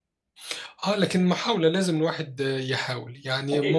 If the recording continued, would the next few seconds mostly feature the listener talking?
Yes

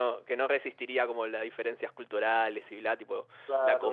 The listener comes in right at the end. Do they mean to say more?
Yes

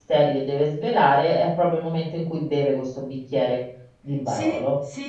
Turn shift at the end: Yes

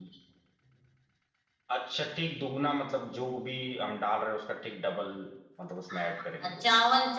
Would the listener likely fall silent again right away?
No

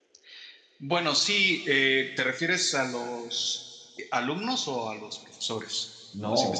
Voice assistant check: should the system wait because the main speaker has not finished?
No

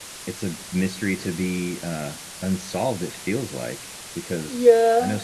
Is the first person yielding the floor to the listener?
Yes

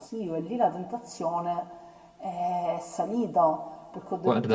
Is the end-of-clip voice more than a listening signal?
No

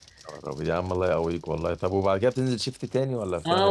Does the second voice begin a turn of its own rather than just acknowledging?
Yes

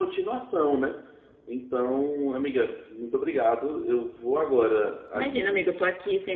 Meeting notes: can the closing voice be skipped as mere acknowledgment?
No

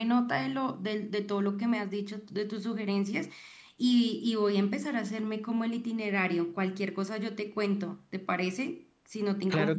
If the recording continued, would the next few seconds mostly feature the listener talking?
Yes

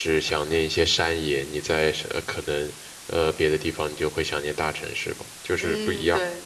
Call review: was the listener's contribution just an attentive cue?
No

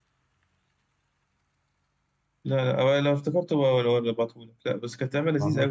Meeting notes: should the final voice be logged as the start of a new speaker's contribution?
No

